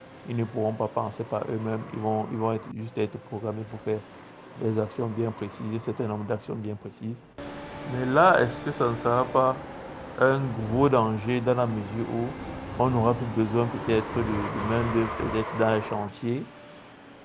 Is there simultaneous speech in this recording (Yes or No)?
No